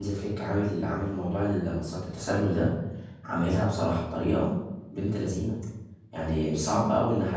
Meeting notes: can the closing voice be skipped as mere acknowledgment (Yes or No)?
Yes